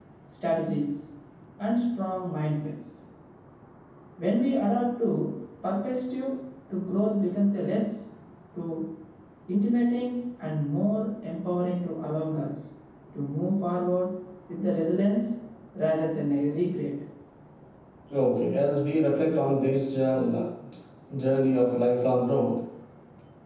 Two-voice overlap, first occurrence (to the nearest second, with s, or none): none